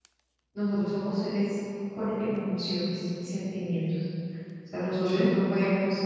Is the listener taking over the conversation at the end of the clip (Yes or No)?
No